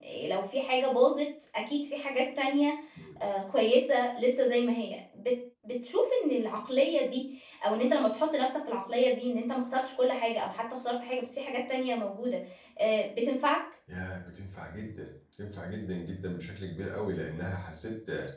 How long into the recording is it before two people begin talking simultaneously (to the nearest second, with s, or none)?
none